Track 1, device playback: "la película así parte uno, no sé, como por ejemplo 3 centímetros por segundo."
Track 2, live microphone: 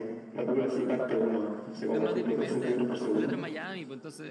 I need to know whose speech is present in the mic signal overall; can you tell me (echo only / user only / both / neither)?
both